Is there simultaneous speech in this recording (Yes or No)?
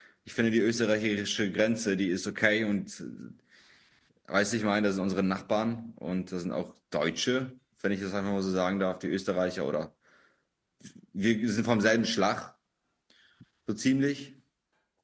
No